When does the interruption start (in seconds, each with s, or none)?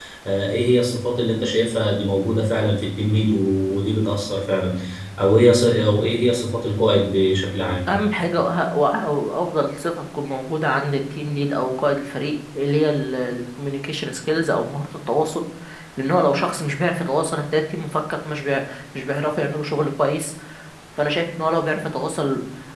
none